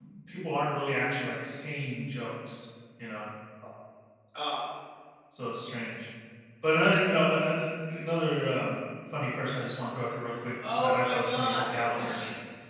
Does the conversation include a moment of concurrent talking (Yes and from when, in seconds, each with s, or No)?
Yes, from 10.6 s